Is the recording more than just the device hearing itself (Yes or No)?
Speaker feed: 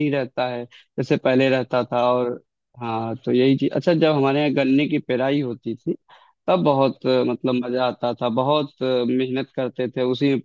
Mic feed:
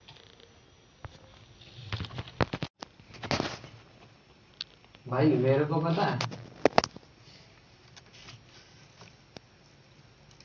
Yes